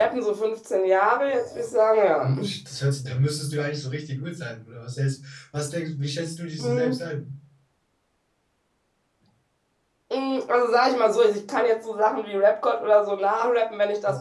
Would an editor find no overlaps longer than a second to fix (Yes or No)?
Yes